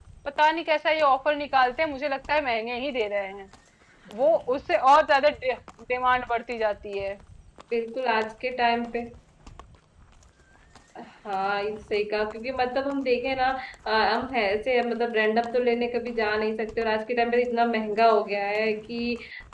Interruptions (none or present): none